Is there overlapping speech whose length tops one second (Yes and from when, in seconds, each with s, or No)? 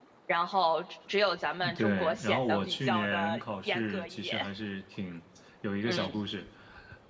Yes, from 1.8 s